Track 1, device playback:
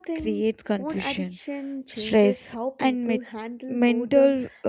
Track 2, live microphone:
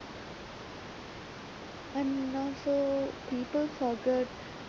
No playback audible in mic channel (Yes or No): Yes